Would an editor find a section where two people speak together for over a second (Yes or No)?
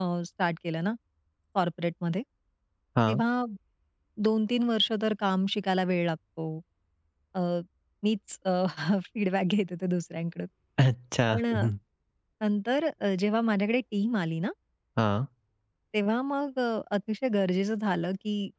No